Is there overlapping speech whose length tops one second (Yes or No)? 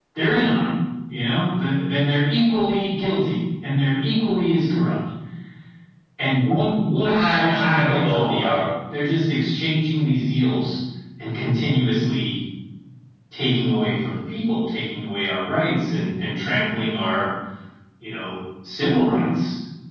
Yes